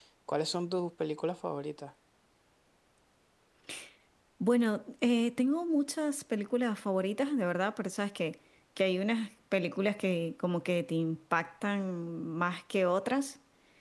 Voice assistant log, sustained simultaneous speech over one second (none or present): none